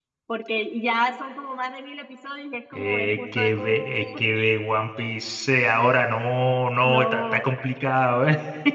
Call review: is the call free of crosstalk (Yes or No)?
No